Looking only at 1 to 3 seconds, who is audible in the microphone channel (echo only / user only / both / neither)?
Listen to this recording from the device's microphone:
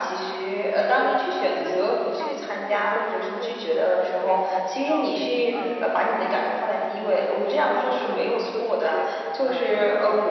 both